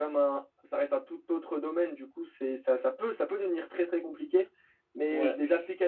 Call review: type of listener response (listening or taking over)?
listening